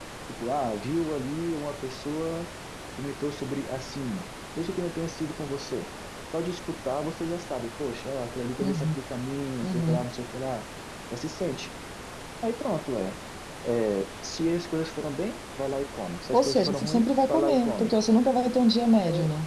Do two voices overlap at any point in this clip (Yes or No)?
Yes